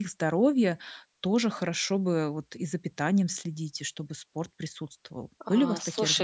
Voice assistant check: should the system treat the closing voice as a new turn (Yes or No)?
Yes